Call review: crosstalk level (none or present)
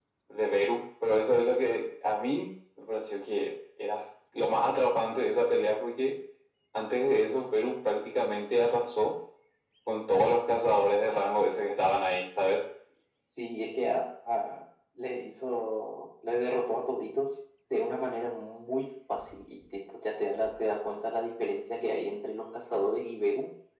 none